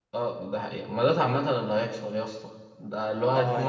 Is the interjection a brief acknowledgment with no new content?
Yes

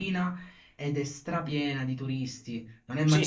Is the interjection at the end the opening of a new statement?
Yes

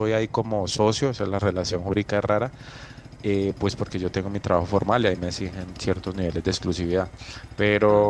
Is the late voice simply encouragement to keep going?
Yes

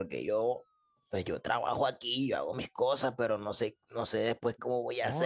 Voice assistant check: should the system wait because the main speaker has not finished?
No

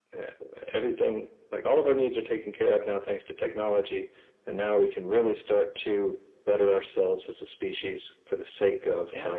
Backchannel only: Yes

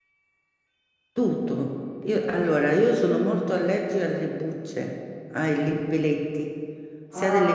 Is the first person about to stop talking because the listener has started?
No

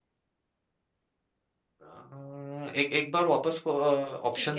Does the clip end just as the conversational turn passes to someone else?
Yes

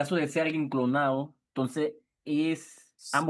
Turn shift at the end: Yes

